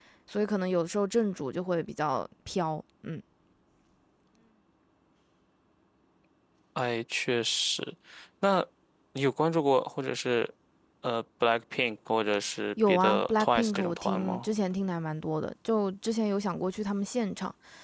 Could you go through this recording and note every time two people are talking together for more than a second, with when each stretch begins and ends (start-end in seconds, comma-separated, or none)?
12.9-14.5